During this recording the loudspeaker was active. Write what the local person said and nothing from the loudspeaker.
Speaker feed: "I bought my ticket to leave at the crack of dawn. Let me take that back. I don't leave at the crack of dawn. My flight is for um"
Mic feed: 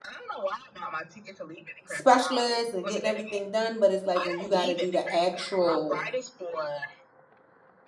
specialists and getting everything done, but it's like when you got to do the actual

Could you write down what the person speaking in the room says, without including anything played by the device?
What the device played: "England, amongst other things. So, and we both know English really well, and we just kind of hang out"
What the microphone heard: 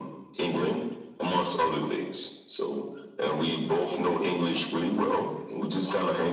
none

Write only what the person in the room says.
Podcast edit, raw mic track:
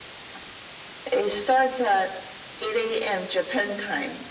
none

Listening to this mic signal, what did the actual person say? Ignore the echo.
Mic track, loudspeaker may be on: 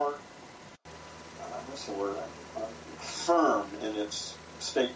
none

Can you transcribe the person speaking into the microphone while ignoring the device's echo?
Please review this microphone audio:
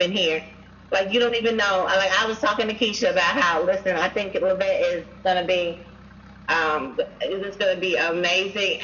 none

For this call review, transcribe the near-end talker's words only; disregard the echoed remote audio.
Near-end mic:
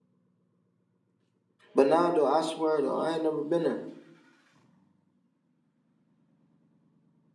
But nah, though, I swear though, I ain't never been there.

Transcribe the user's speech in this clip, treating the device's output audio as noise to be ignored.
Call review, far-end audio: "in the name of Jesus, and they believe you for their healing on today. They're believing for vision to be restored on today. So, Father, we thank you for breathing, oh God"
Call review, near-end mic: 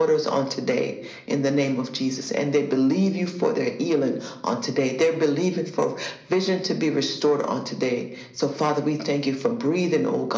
none

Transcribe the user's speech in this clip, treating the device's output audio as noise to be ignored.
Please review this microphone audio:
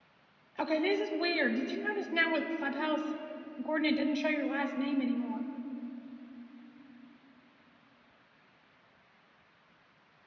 Okay, this is weird. Did you notice now with Clubhouse, Gordon, it doesn't show your last name anymore.

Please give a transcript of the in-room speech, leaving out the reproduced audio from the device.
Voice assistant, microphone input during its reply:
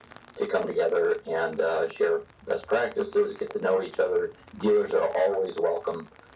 none

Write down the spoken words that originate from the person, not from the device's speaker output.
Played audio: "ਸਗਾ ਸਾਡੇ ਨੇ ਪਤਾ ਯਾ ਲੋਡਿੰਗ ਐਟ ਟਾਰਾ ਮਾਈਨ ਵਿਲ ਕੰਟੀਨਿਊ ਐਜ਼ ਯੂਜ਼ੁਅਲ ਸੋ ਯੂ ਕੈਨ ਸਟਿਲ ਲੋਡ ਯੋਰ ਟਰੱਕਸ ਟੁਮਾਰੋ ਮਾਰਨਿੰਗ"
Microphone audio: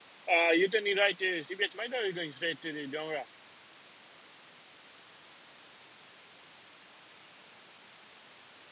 ਆ ਯੂ ਟੈਨ ਰਾਈਟ ਸੀਬੀਐਚ ਮਾਈਟ ਆਰ ਗੋਇੰਗ ਸਟ੍ਰੇਟ ਟੂ ਦ ਡੋਂਗਰਾ

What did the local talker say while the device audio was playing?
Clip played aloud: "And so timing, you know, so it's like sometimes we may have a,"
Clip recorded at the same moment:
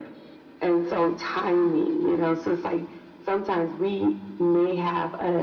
none

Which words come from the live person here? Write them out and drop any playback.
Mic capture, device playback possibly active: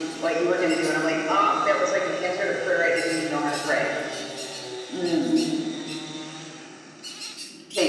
none

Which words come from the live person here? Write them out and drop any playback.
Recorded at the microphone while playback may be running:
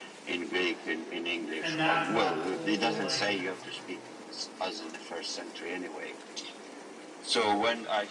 and that's that whole like

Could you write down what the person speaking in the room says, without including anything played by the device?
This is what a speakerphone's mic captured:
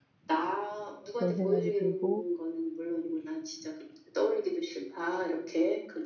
그런 생각이 들고

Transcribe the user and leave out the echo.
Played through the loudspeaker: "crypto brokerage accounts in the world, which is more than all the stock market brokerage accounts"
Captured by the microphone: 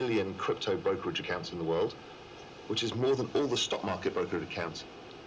none

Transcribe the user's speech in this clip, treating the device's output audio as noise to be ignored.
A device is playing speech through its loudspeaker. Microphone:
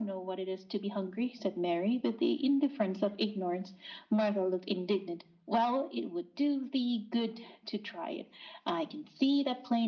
none

